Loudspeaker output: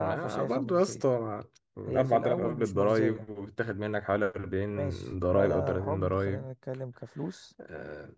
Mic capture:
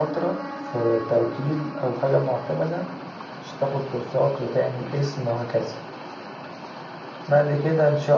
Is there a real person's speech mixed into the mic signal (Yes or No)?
Yes